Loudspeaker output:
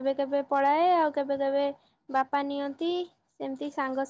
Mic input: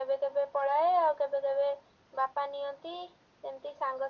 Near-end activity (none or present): none